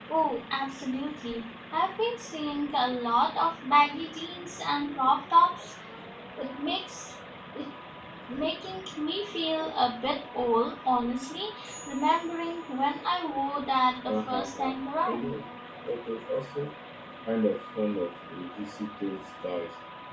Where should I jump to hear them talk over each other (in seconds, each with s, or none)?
14.1 s